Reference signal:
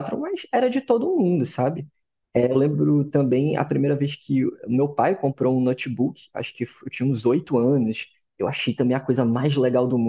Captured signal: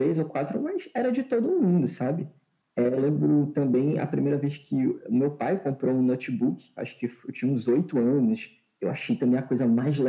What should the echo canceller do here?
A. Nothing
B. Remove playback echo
B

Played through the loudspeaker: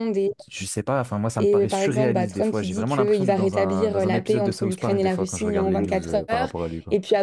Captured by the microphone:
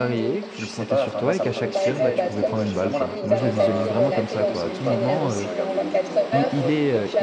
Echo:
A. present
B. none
A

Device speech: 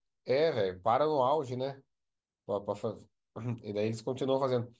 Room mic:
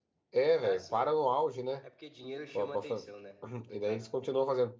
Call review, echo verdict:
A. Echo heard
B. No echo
A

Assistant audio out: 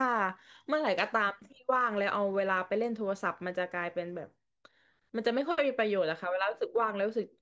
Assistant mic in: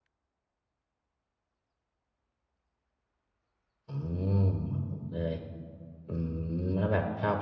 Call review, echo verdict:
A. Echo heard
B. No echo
B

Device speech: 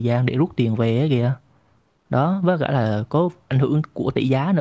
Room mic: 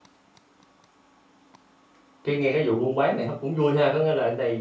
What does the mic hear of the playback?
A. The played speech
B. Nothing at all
B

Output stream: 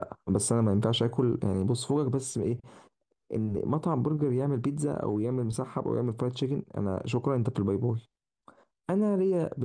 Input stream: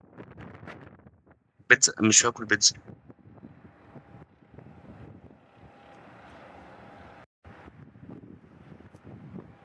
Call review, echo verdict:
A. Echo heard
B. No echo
B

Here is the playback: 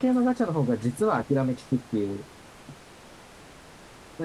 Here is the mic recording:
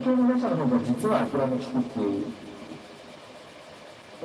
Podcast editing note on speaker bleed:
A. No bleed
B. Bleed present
B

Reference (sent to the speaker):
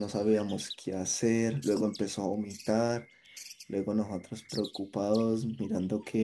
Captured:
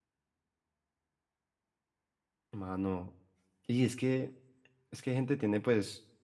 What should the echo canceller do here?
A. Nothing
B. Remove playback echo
A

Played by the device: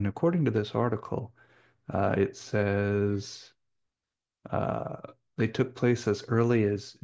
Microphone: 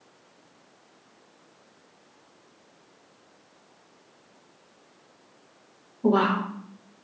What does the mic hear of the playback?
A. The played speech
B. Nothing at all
B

